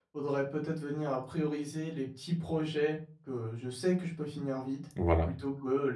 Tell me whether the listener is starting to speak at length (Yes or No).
No